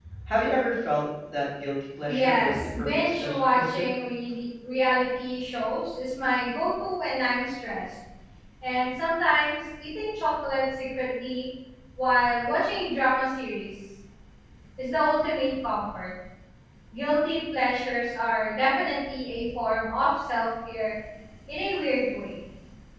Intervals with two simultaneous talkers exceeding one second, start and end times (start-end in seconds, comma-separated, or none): 2.1-3.9